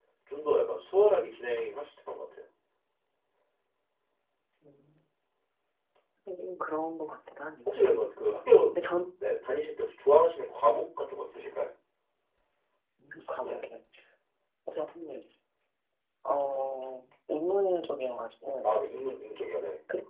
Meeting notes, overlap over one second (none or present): none